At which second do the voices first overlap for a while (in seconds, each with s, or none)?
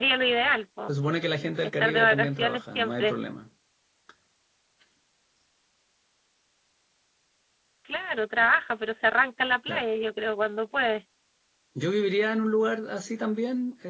1.8 s